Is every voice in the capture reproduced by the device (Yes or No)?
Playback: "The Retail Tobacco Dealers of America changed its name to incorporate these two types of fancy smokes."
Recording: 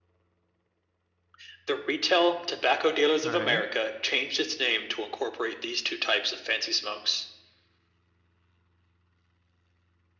No